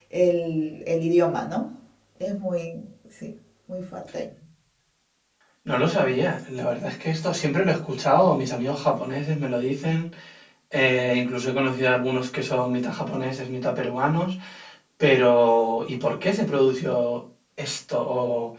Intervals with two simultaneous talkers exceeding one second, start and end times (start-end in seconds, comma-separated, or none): none